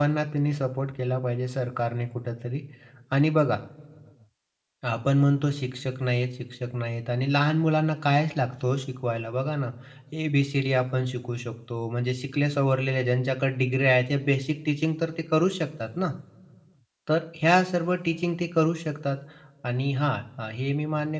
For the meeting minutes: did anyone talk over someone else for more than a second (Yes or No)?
No